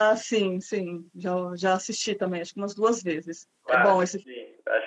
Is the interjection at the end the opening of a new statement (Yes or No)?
Yes